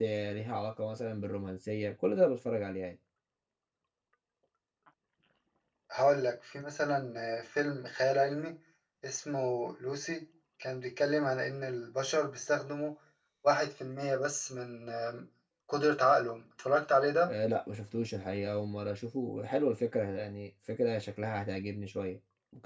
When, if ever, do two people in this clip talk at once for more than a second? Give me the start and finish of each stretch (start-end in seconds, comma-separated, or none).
none